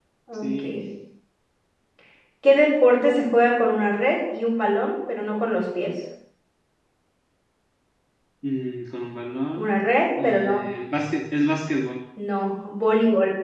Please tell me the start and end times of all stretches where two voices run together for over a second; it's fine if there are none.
none

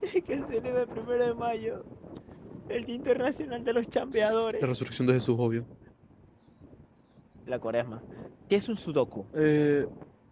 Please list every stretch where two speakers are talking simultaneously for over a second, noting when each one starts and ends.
none

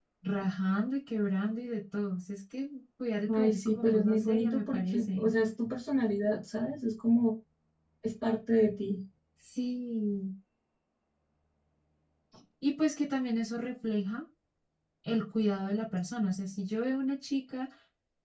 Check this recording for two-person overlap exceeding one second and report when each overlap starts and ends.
3.3-5.3

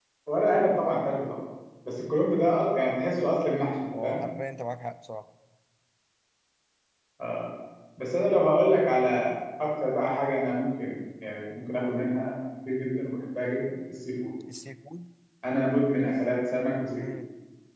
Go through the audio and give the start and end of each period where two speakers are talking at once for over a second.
none

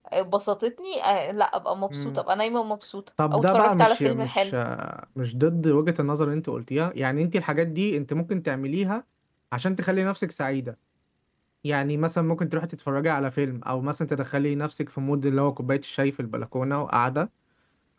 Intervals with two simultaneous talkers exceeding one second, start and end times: 3.3-4.5

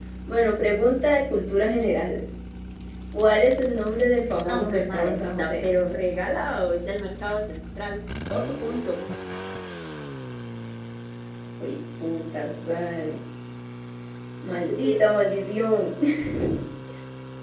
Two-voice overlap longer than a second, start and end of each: 4.4-5.7

